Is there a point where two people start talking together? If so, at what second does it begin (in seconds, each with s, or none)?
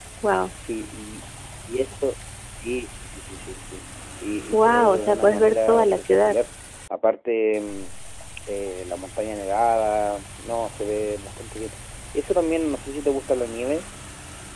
4.5 s